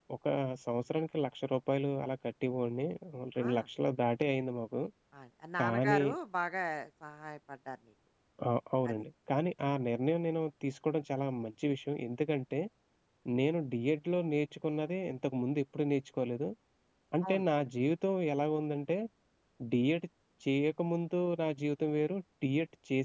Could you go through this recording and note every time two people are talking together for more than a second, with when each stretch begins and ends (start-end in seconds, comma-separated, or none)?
none